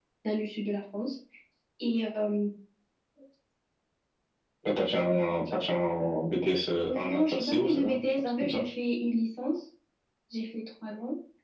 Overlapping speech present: Yes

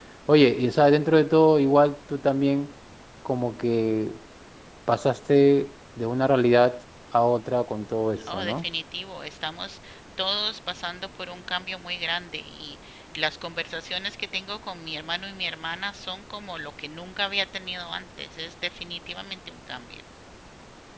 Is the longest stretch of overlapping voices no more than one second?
Yes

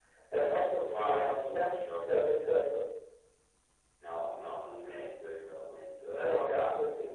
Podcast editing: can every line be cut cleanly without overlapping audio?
No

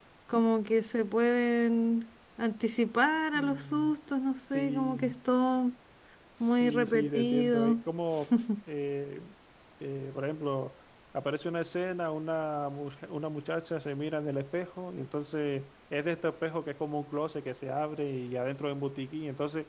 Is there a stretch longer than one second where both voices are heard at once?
Yes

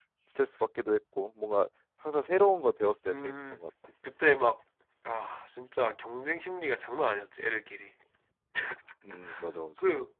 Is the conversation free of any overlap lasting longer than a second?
Yes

